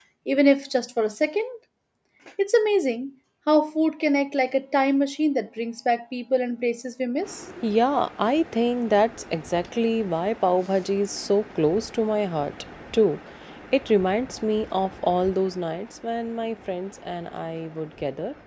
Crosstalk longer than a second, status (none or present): none